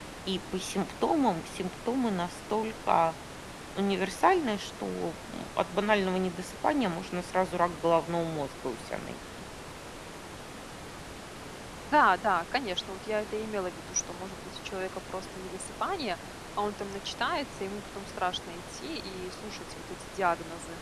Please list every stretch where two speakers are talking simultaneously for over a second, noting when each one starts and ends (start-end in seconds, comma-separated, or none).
none